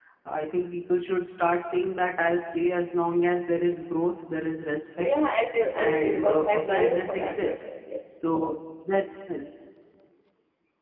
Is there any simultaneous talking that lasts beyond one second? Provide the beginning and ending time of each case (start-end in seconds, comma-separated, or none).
5.8-7.5